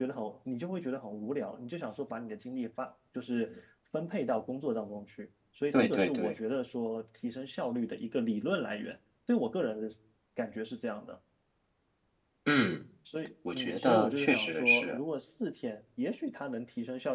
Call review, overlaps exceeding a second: present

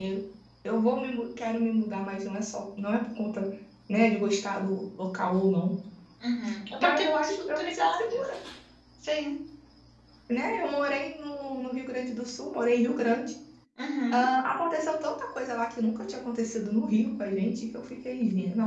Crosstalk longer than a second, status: present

